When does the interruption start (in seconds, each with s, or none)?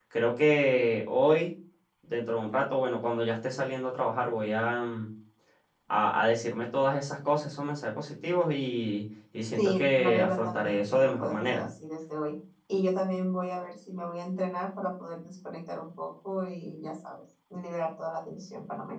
9.6 s